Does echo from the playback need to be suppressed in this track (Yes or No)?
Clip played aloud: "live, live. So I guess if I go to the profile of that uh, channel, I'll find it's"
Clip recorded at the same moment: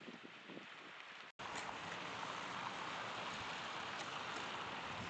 No